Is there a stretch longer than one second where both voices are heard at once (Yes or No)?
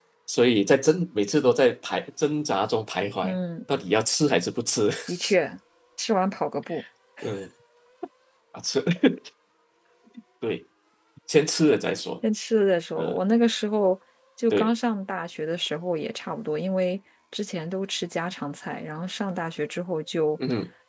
No